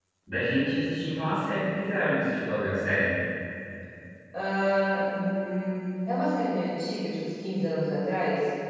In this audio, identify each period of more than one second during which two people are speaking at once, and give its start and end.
none

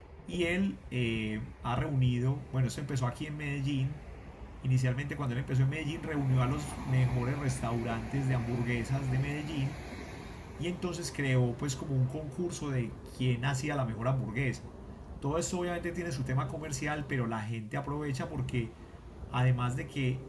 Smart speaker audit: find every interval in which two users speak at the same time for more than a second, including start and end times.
none

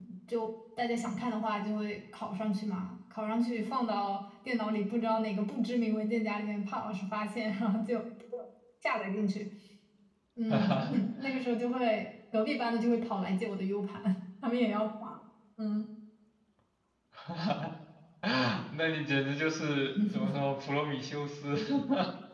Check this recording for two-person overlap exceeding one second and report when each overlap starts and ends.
none

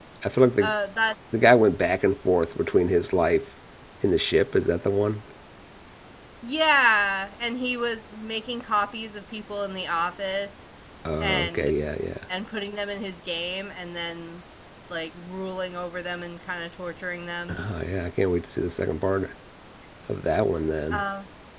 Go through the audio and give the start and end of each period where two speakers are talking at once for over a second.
none

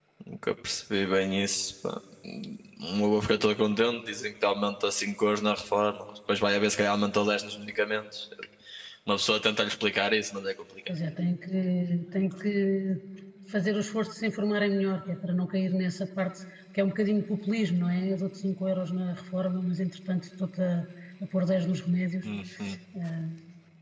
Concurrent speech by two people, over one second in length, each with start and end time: none

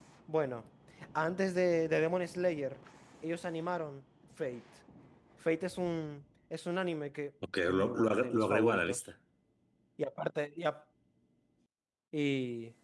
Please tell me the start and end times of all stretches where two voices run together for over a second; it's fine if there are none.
7.7-9.0

